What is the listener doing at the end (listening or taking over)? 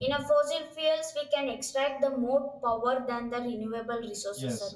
taking over